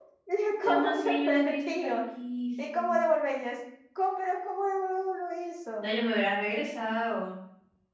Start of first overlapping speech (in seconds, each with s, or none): 0.6 s